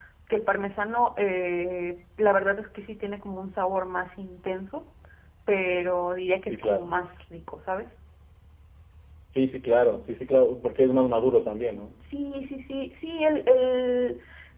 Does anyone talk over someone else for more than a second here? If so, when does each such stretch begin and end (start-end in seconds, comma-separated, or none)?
none